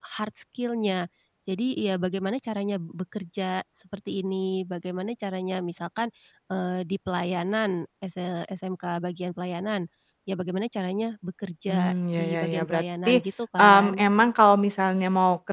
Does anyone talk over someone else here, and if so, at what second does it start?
12 s

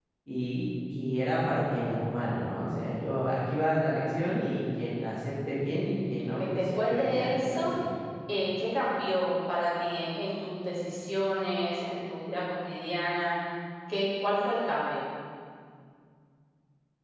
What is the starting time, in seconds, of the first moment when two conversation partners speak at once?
6 s

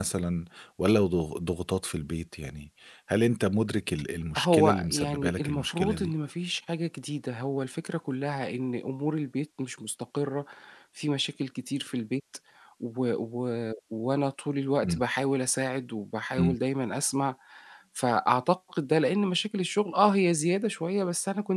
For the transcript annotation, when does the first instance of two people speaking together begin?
4 s

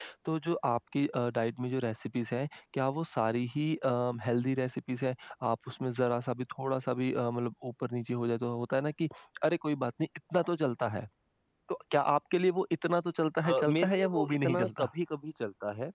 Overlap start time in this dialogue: 13 s

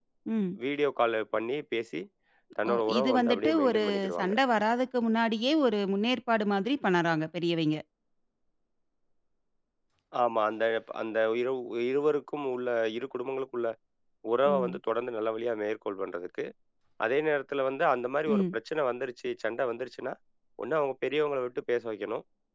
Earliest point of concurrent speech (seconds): 3 s

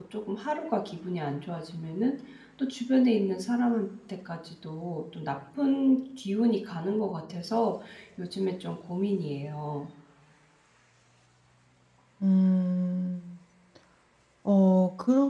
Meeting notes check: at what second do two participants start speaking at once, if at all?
none

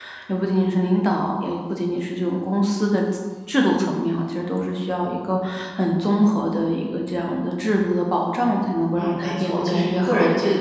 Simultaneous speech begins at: 9 s

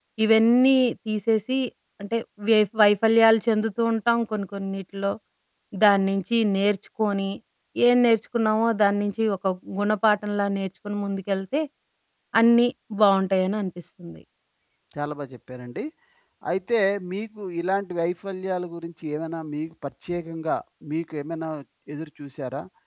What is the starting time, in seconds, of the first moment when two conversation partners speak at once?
none

